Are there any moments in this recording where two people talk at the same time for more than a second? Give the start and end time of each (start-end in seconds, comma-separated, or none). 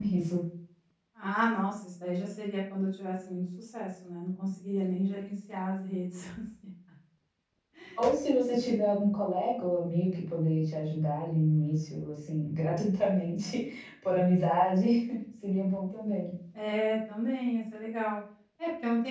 none